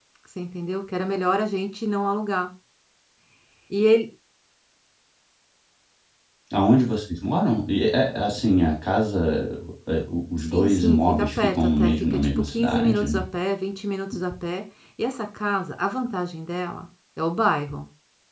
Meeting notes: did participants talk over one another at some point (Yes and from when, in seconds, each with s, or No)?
Yes, from 10.5 s